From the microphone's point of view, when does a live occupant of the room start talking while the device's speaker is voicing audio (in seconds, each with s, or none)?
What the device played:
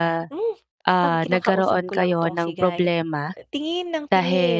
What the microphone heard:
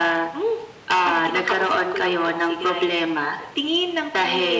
none